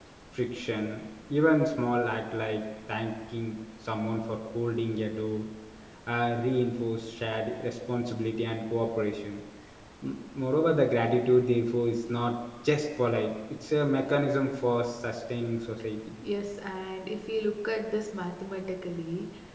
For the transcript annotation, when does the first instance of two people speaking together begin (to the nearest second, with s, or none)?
none